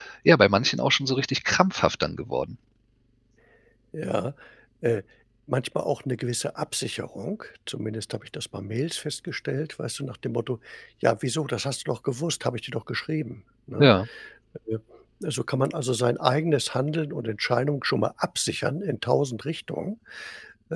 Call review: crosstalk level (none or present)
none